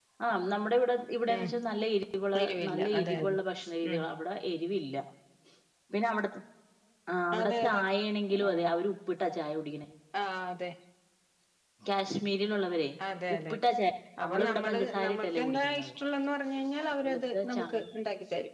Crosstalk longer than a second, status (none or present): present